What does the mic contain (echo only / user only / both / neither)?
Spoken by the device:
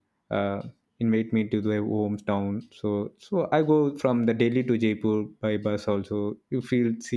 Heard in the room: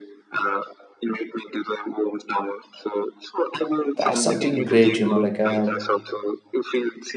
both